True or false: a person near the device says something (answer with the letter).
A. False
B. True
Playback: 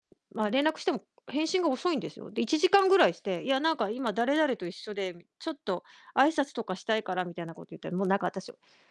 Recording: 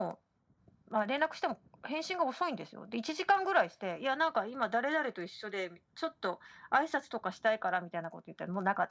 A